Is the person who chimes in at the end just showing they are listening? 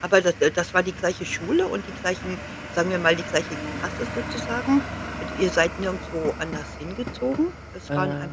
Yes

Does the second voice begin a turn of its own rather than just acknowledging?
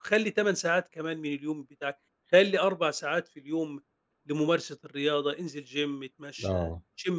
No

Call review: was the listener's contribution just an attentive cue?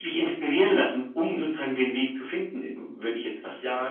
No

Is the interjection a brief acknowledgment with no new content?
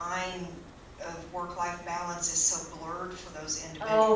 No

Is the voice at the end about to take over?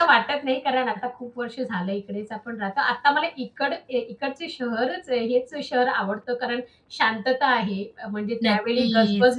No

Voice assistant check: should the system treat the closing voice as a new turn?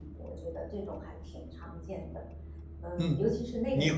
Yes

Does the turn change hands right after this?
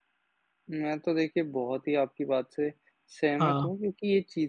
No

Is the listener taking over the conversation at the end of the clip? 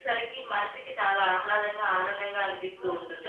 Yes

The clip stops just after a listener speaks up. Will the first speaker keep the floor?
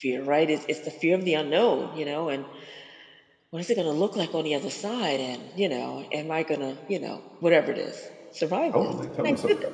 No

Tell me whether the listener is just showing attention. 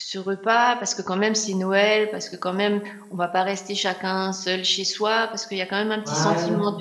Yes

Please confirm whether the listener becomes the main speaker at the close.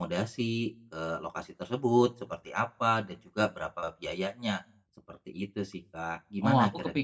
Yes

